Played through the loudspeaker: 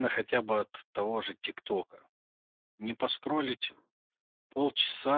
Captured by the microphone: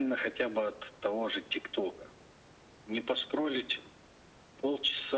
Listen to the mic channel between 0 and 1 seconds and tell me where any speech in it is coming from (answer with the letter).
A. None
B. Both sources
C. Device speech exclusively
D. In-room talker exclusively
C